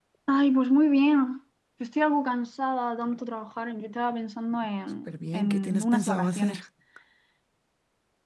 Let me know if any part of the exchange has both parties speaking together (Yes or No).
Yes